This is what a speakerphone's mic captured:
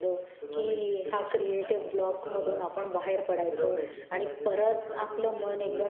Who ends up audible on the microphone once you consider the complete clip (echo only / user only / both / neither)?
both